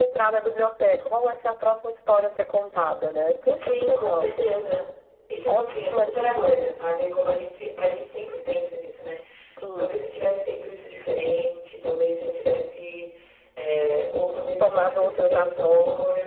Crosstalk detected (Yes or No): Yes